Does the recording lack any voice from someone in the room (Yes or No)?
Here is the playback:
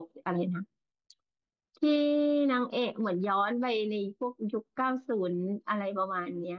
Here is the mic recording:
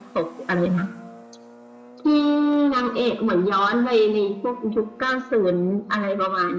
Yes